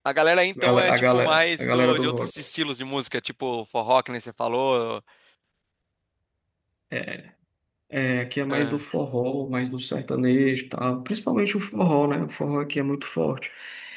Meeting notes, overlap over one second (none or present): present